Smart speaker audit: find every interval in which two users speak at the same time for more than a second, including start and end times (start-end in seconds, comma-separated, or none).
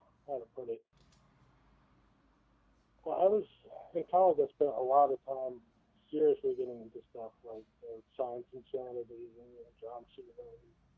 none